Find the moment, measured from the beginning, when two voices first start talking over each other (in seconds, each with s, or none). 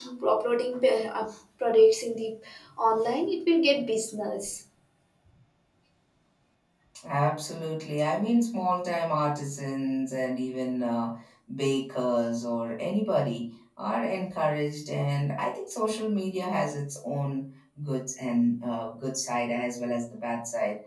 none